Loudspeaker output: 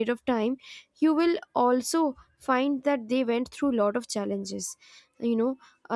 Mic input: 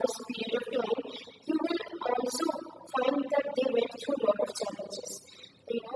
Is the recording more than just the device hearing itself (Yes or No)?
No